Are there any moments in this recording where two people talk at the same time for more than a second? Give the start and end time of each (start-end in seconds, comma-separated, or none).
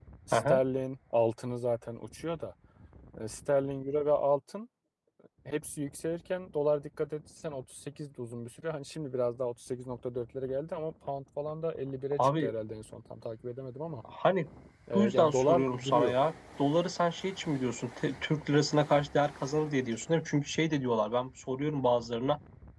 14.9-16.2